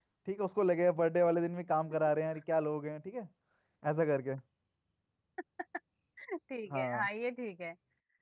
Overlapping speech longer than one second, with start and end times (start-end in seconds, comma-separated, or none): none